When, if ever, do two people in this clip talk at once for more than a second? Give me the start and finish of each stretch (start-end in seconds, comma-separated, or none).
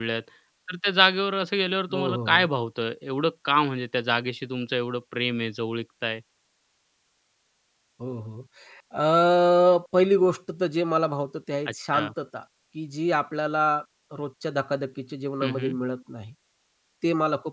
none